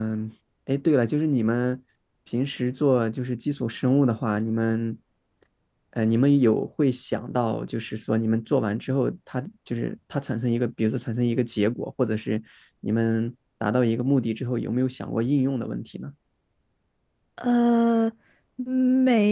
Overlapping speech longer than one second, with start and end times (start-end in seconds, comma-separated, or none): none